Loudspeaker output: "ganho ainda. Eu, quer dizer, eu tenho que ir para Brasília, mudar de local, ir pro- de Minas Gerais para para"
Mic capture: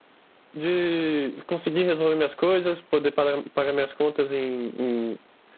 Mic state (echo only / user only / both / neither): user only